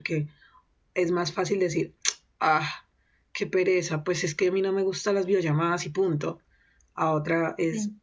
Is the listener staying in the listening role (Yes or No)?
Yes